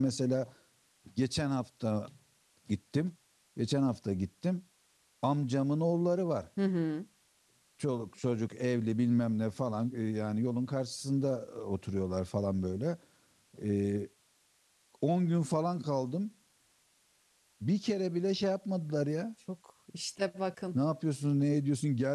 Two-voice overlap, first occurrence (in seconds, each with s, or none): none